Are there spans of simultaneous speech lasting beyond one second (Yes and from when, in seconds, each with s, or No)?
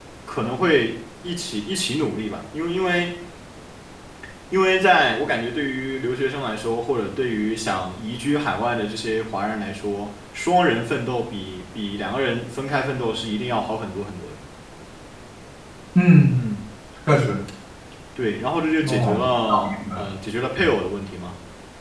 Yes, from 18.9 s